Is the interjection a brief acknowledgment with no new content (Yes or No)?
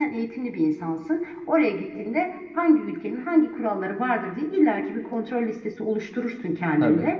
Yes